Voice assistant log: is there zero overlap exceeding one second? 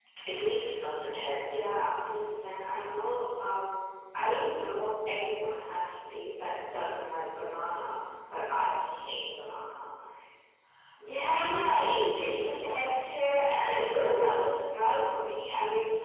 No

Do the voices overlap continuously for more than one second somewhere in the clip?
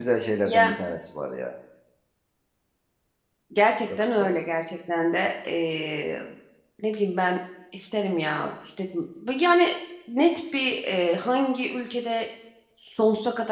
No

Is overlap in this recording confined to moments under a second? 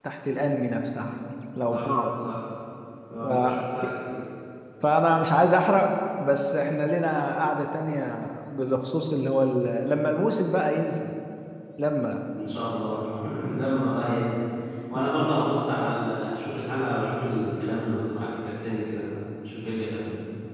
Yes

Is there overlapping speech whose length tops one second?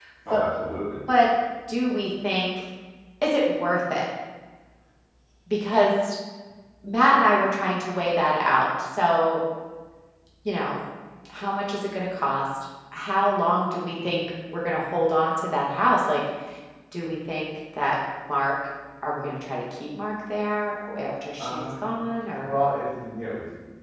No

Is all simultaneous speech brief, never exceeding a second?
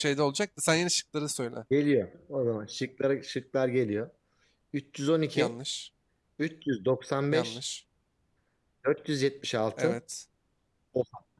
Yes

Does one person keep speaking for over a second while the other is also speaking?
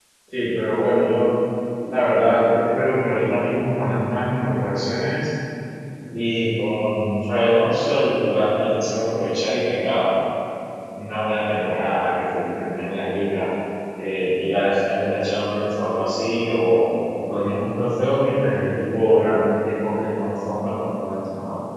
No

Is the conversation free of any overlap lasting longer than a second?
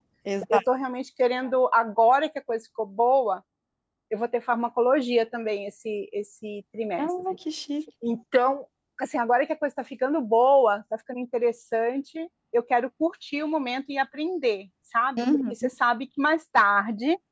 Yes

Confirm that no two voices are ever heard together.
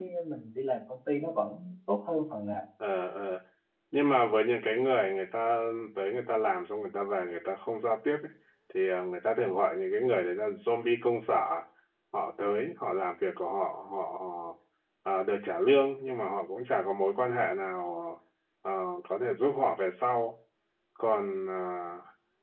Yes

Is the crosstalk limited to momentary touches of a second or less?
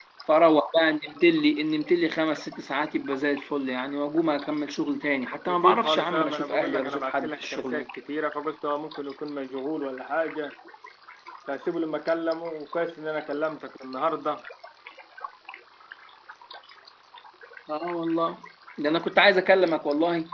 No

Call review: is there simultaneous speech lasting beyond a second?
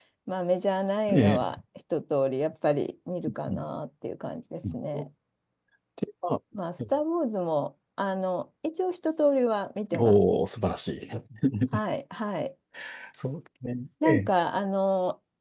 No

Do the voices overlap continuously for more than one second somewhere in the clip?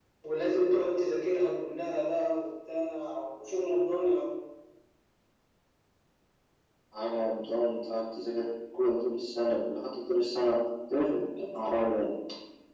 No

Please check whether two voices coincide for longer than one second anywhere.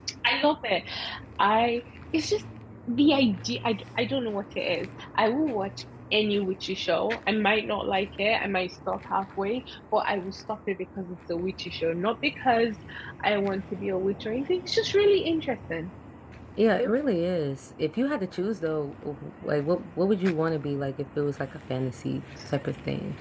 No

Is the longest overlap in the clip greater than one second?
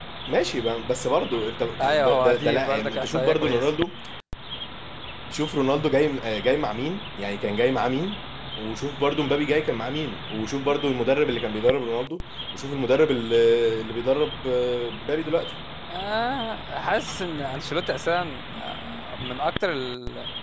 Yes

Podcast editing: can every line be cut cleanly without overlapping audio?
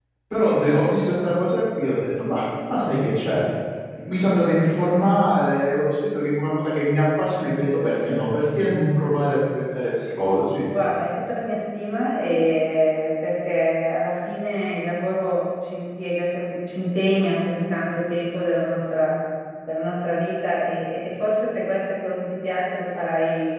Yes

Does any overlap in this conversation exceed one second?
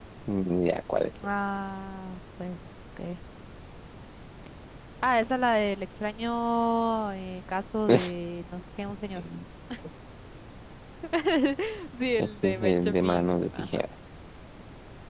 Yes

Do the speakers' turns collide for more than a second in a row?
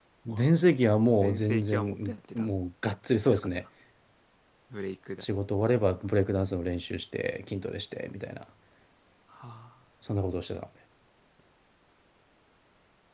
Yes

